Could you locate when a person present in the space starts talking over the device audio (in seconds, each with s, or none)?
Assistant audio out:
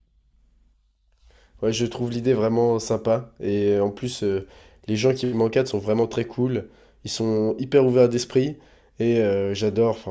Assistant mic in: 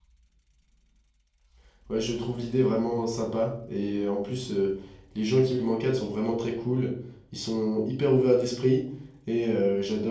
none